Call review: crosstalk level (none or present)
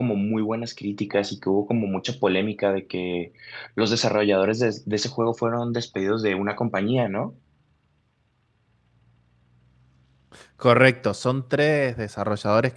none